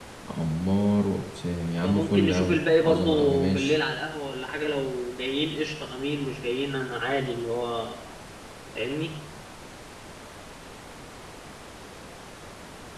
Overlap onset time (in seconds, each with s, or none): 1.8 s